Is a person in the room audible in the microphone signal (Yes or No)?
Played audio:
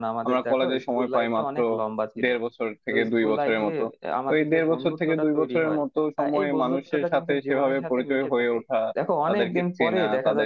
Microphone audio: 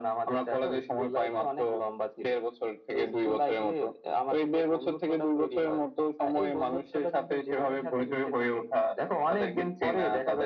No